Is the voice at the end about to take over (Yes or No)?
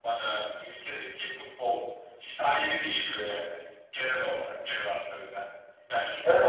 No